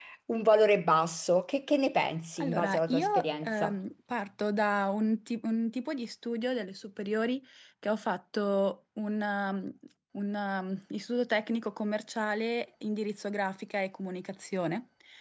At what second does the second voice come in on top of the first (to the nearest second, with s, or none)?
2 s